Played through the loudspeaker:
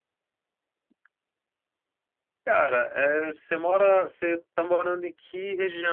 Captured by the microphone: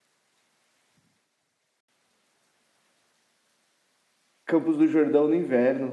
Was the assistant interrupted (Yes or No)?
Yes